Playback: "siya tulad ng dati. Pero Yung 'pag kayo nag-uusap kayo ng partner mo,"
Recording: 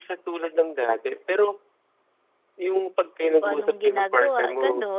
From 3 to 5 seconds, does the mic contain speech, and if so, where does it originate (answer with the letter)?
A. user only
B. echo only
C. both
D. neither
C